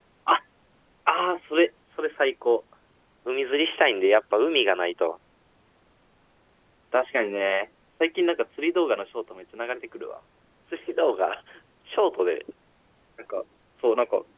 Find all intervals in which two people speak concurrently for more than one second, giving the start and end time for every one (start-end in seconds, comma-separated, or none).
none